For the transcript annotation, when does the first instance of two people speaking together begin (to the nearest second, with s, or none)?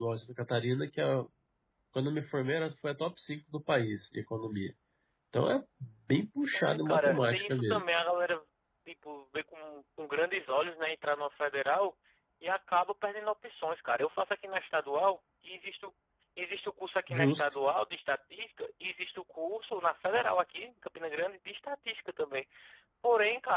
7 s